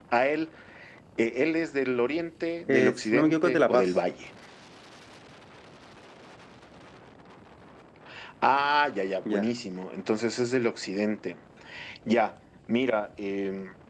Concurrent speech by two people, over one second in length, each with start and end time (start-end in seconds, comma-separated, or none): 2.7-3.9